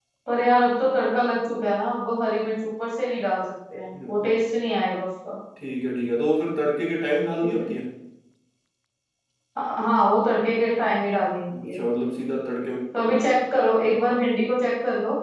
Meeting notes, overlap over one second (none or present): none